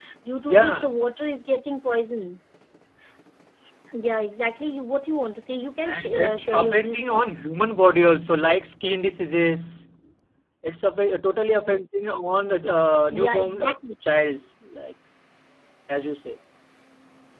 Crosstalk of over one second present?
Yes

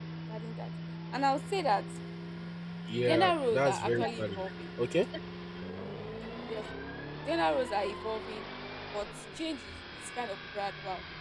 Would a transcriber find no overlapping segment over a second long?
No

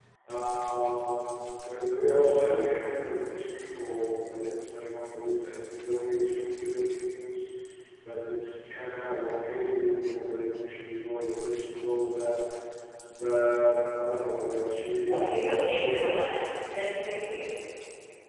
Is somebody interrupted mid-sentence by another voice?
No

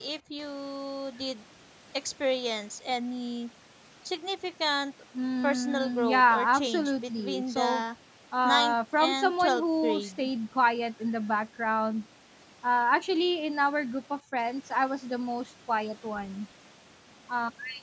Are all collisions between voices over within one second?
No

